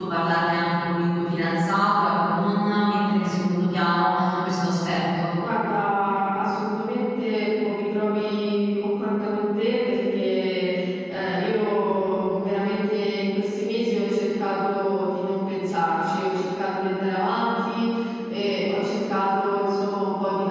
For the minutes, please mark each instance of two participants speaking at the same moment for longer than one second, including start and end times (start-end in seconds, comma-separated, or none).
none